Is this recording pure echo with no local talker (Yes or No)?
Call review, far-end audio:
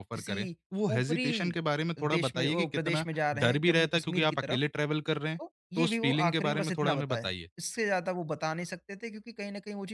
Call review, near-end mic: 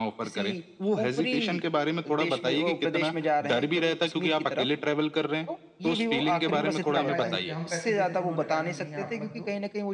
No